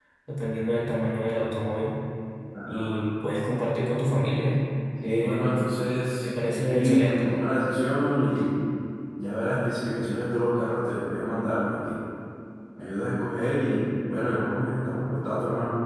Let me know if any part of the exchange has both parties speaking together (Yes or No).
Yes